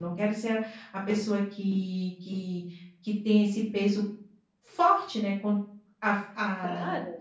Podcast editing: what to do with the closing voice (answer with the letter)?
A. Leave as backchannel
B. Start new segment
A